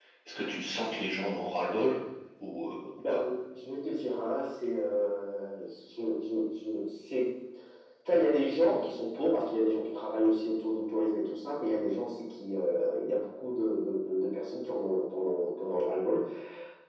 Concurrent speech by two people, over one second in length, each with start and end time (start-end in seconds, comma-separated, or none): none